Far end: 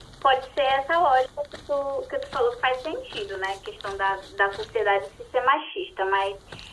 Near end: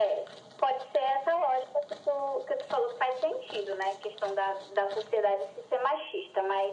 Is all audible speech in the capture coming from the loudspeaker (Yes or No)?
Yes